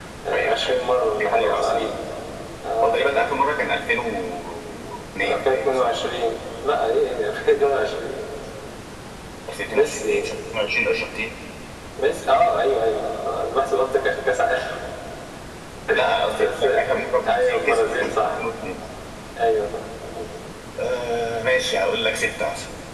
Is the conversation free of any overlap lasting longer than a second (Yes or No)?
No